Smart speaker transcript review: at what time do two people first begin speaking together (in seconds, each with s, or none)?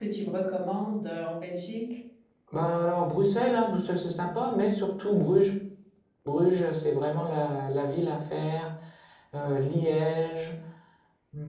none